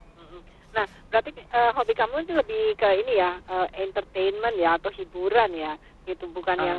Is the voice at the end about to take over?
No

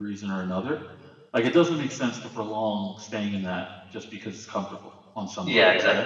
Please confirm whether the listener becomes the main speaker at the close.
Yes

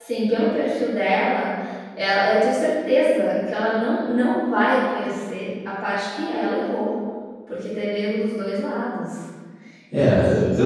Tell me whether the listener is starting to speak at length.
Yes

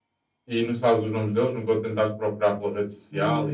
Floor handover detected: Yes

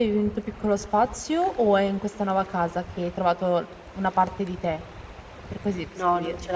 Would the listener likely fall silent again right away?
No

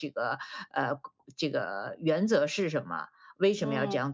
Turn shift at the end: No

